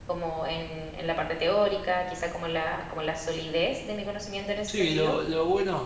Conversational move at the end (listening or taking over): taking over